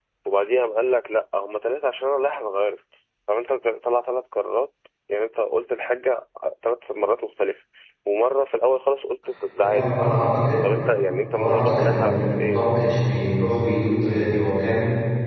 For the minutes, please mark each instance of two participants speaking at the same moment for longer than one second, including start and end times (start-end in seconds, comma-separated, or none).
11.3-12.6